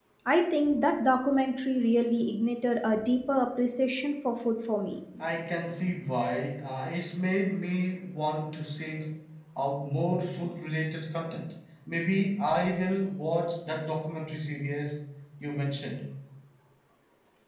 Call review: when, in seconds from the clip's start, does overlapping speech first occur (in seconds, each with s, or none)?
none